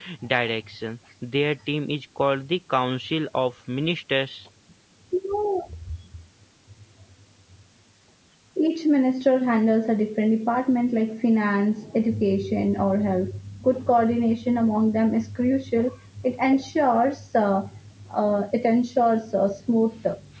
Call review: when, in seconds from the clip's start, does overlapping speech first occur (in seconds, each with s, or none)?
none